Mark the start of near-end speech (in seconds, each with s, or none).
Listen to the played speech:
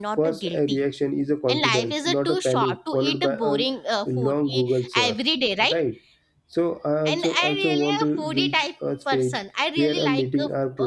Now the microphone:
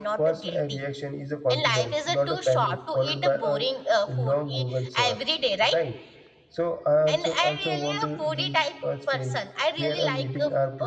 none